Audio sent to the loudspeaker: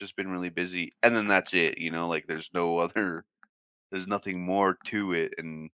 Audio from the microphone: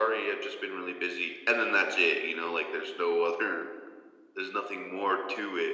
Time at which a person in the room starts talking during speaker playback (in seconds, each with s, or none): none